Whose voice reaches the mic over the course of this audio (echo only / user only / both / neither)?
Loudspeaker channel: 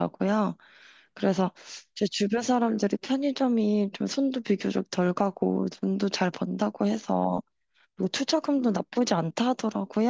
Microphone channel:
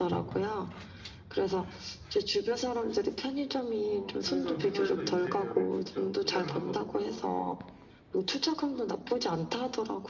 both